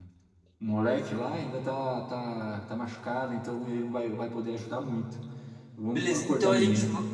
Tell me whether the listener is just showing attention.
No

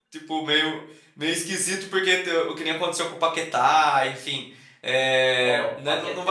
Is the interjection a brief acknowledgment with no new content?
No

